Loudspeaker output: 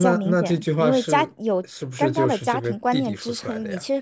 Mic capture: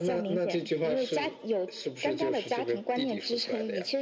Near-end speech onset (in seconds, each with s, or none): none